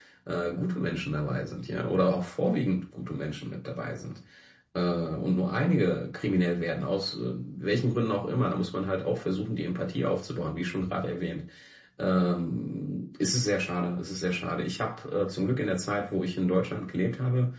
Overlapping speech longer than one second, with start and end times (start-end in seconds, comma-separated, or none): none